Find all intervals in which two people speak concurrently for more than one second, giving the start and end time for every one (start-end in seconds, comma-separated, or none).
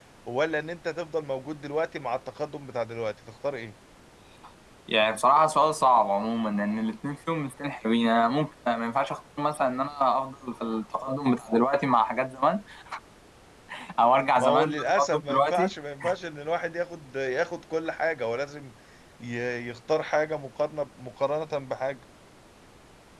14.4-15.7